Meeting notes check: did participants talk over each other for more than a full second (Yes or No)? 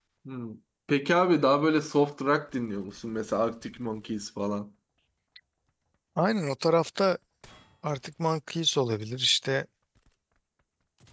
No